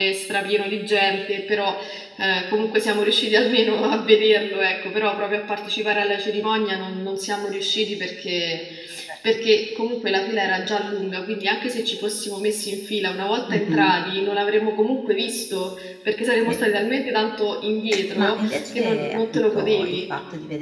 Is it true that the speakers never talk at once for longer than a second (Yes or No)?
No